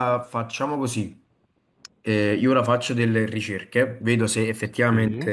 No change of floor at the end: Yes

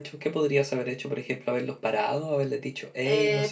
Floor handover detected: Yes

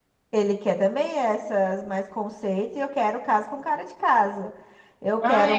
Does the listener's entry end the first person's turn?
Yes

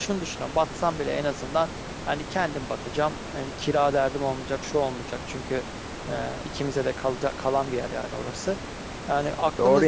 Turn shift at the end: Yes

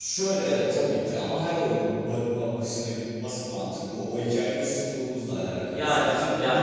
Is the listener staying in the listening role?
Yes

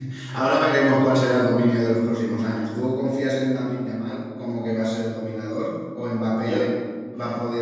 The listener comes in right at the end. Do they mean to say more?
No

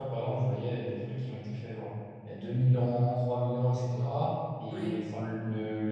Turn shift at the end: No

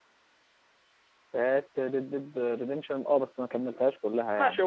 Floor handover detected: Yes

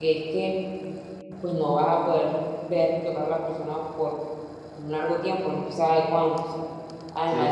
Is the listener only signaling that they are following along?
Yes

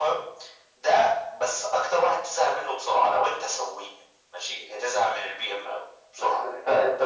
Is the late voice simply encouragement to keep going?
No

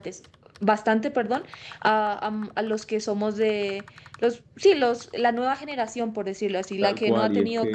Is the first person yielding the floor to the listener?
Yes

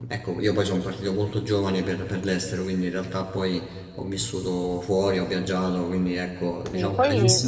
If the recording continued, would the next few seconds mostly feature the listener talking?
Yes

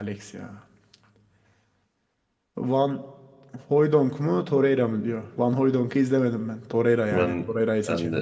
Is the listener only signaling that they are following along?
No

